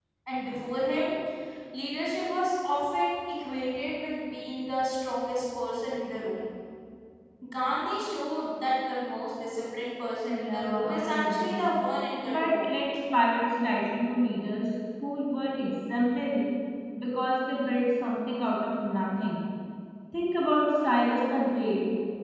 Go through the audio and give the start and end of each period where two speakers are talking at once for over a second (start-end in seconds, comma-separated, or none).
10.2-11.7